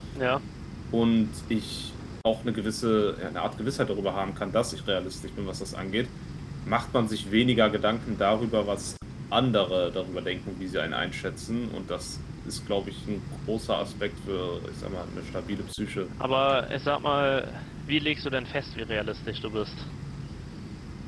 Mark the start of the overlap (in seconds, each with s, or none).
none